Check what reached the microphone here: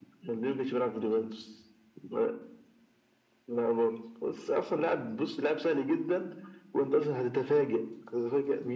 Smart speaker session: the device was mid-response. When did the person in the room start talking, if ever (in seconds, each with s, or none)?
none